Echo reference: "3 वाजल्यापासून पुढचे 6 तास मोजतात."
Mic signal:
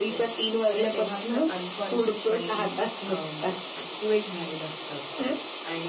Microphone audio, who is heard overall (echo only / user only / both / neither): both